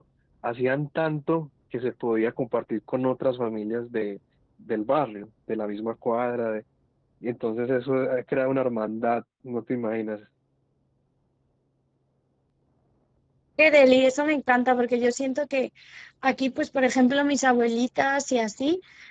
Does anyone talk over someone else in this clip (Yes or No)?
No